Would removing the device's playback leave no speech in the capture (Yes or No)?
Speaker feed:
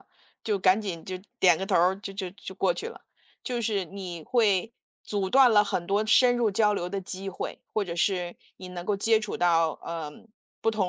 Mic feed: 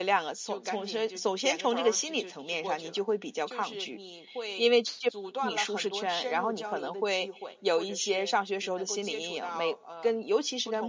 No